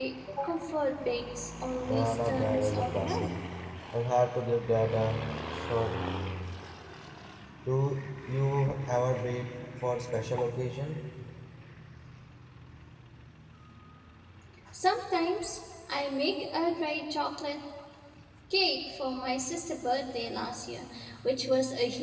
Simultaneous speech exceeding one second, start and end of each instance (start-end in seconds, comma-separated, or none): 1.9-3.3